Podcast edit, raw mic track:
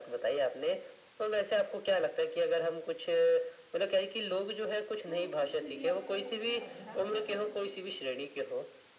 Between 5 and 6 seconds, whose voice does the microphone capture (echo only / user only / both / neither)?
both